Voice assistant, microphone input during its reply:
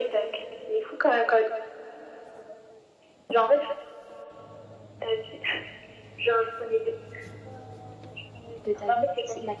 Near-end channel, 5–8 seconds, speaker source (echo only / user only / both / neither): echo only